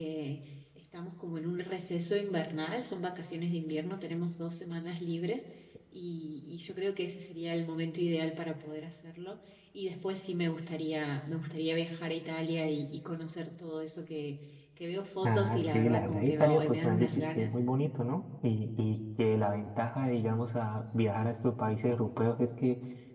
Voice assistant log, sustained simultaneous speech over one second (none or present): present